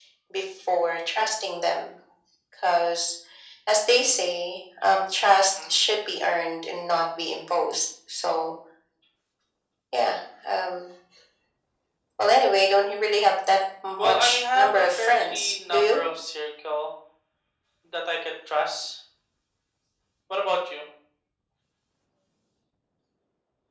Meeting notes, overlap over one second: present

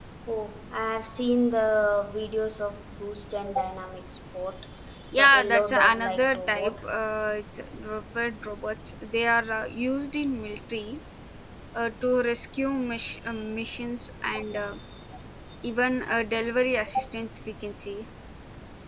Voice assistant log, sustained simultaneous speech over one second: present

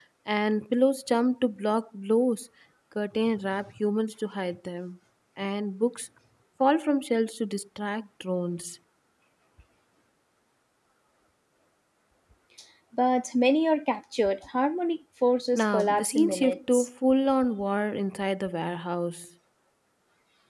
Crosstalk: present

